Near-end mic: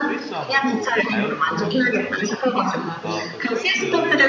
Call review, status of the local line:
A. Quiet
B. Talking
B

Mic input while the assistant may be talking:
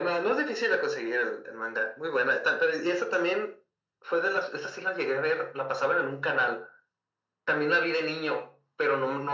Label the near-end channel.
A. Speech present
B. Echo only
B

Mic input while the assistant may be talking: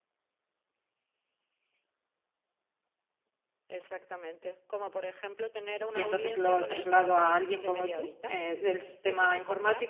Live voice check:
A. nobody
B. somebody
B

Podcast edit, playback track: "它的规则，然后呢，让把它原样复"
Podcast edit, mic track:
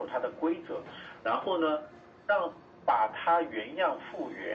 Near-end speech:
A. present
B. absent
B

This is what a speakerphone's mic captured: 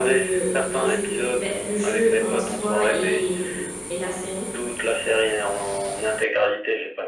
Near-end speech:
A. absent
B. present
B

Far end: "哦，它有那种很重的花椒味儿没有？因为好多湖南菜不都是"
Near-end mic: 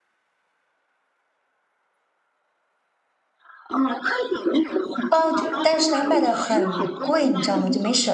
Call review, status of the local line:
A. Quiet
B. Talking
B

